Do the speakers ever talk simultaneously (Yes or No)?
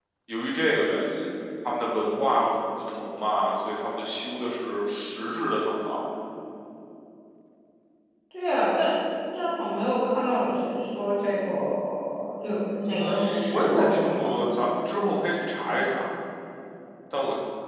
Yes